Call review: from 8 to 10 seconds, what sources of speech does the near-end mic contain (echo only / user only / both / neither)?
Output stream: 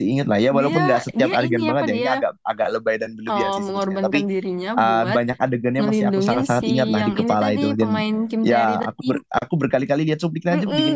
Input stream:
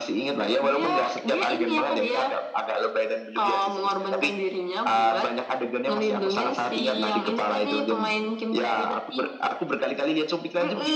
echo only